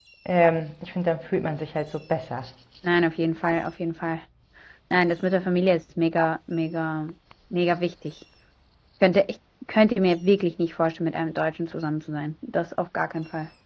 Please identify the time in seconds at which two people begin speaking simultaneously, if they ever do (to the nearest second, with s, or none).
none